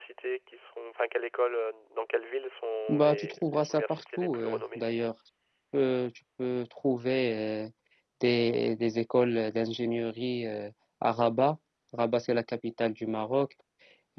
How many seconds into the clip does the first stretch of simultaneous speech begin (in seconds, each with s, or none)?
2.9 s